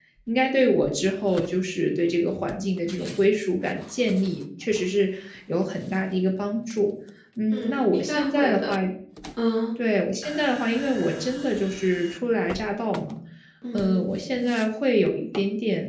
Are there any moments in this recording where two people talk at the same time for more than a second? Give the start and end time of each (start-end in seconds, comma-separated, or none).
7.5-8.8